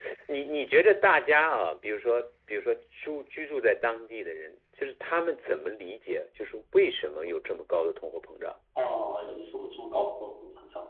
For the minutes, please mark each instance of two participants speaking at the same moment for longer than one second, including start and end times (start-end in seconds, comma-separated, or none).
none